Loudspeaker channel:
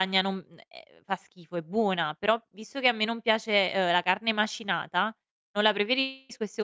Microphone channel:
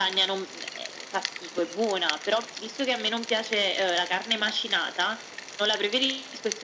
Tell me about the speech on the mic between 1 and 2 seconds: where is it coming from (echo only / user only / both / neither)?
echo only